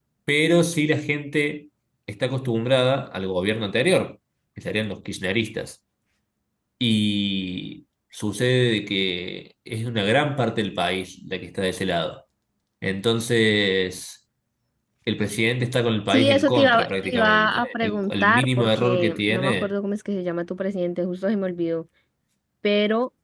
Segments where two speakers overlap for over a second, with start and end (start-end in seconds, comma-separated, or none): 16.1-19.7